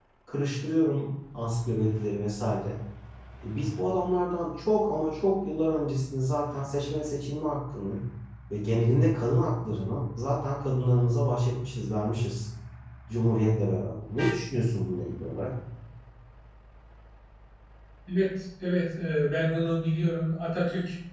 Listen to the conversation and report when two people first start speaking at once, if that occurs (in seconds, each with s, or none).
none